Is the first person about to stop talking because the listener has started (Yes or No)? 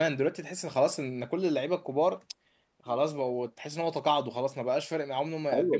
Yes